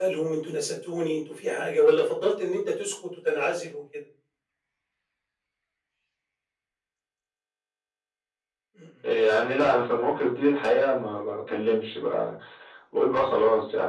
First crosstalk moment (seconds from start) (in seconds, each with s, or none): none